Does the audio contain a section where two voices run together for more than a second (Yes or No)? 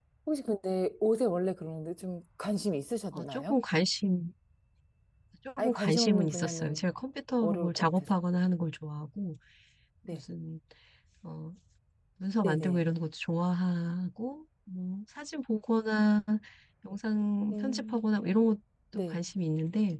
Yes